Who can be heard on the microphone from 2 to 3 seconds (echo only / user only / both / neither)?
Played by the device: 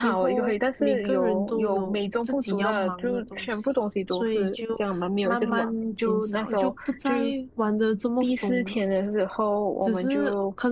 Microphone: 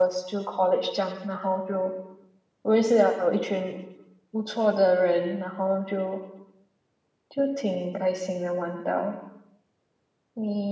user only